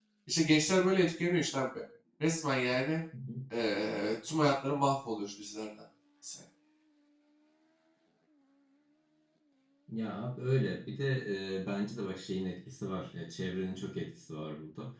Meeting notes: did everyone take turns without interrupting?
Yes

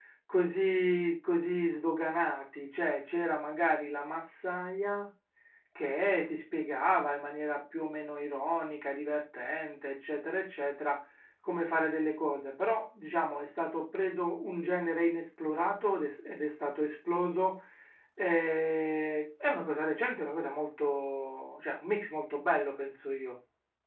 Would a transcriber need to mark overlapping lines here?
No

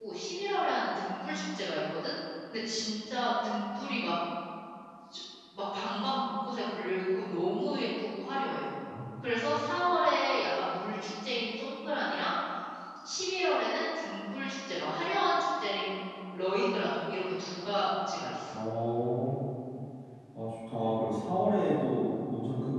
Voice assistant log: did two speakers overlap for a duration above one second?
No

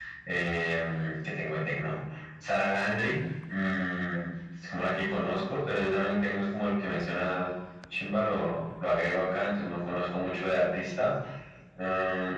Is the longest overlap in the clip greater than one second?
No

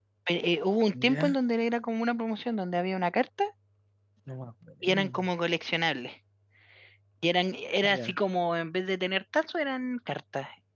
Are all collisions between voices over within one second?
Yes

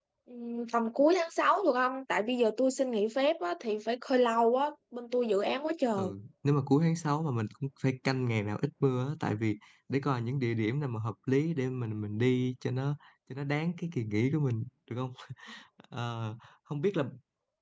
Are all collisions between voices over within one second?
Yes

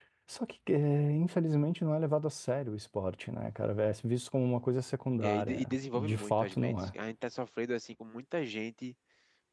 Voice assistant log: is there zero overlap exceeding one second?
No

